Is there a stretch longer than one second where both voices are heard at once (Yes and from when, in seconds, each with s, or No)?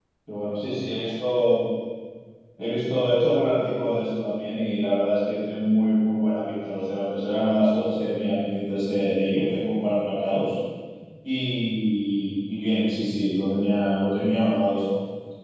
No